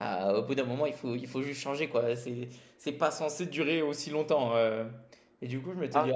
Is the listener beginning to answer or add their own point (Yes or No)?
No